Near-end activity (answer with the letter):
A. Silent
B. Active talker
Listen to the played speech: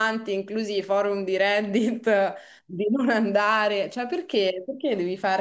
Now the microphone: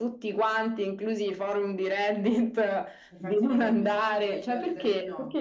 B